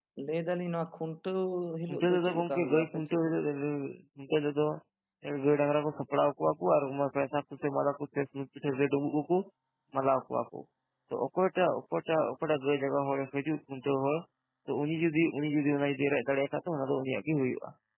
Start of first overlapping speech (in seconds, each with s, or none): 1.9 s